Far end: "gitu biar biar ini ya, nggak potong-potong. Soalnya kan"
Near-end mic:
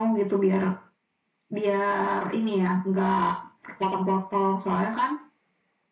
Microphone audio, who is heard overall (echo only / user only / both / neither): echo only